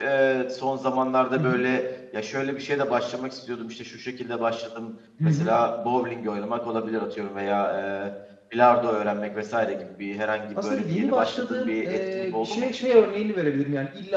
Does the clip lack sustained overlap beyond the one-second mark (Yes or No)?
No